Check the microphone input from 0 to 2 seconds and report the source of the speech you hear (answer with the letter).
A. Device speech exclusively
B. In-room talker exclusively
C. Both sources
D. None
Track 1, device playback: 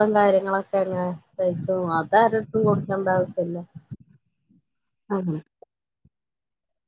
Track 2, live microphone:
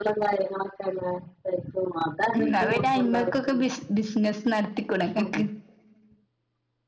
A